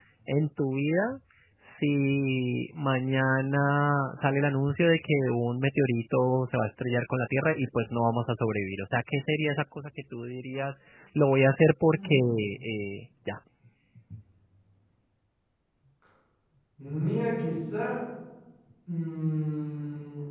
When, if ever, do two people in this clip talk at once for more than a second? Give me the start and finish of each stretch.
none

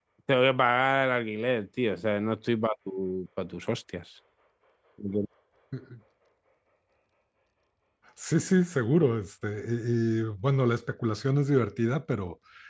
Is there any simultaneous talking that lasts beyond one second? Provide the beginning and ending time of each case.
none

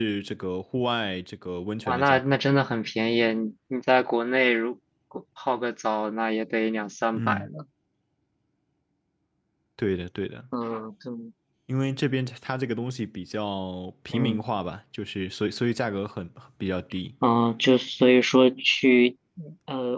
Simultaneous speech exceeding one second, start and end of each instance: none

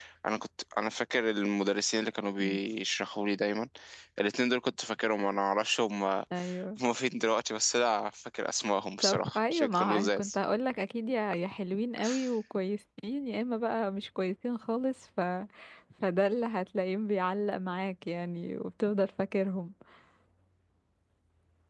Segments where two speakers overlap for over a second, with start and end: 9.0-10.3

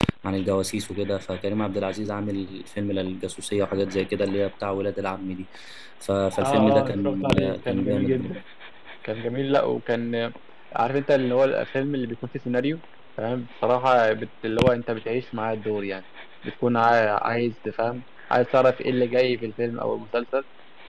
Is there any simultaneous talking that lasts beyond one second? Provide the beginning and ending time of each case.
6.4-8.3

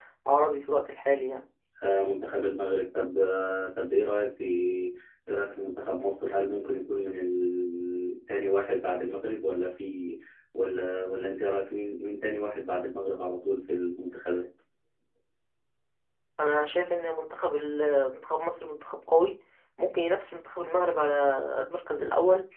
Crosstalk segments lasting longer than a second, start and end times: none

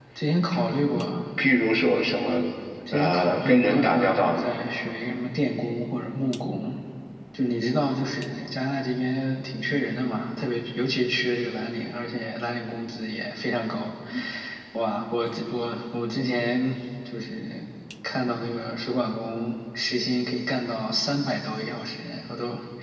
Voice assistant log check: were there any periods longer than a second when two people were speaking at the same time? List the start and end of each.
2.9-4.5

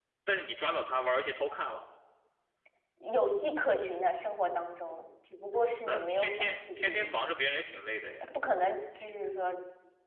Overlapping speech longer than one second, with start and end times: 5.9-7.3

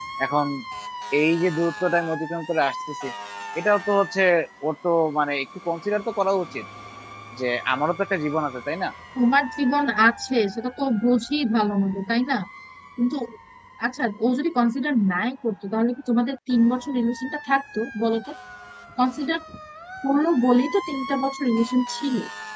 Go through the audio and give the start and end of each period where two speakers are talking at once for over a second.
none

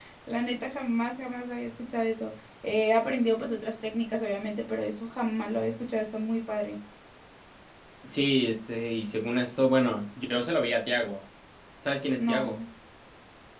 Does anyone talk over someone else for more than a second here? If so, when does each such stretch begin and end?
none

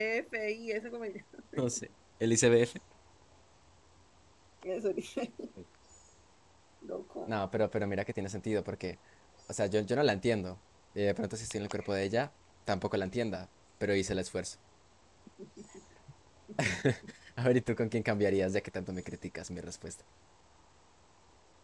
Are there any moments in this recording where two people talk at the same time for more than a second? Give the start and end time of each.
none

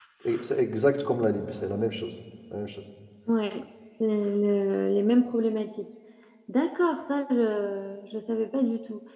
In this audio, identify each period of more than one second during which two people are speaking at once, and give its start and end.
none

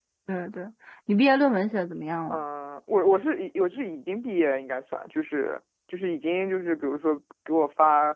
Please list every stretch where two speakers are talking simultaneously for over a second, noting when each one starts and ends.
none

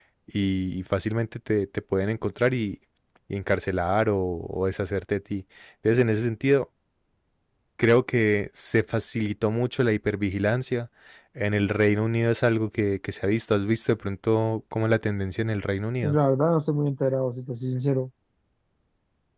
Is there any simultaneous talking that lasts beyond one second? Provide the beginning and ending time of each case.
none

